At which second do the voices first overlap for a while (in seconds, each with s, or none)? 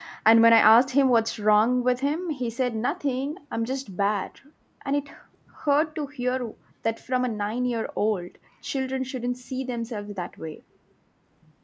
none